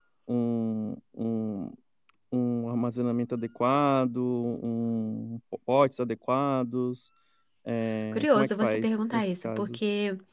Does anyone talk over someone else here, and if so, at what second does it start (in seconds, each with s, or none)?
8.1 s